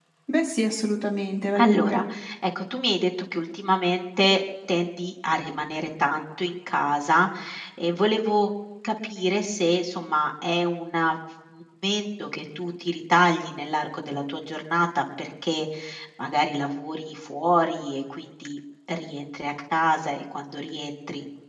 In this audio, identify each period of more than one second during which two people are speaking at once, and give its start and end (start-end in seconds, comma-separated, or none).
none